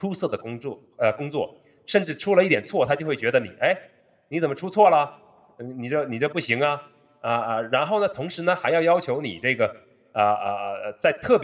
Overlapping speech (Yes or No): No